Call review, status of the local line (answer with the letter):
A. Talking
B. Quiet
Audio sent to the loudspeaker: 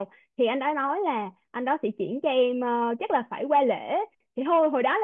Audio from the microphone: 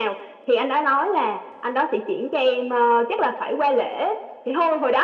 B